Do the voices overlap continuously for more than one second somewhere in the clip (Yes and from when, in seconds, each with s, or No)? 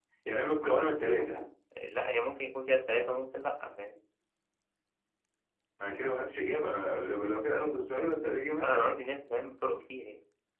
No